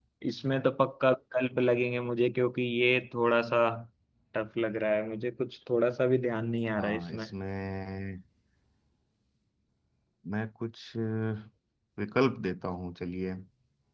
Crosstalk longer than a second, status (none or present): none